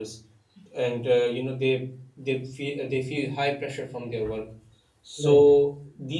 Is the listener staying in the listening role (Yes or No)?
Yes